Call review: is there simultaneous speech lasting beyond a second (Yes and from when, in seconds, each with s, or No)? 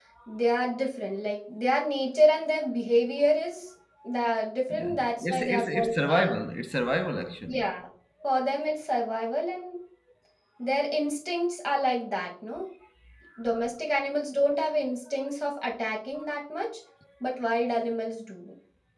Yes, from 4.7 s